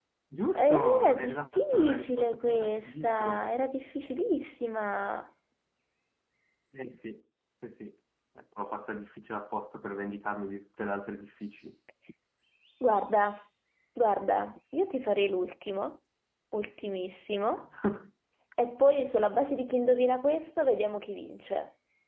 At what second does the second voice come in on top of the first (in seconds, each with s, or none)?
0.6 s